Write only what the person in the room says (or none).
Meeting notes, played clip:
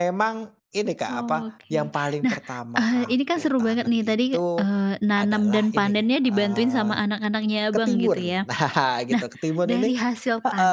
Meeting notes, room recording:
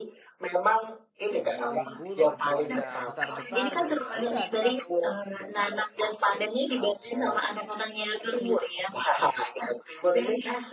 sampai rimbun, eee, buahnya besar-besar gitu, ya udah kita